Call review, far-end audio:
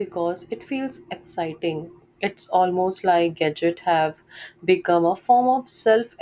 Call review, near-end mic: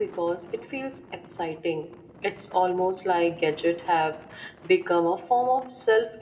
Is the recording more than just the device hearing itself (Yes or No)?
No